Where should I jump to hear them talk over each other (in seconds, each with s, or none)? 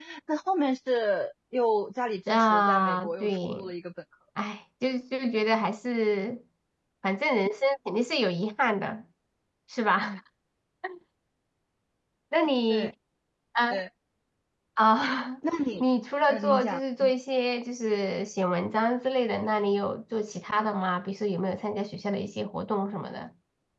2.3 s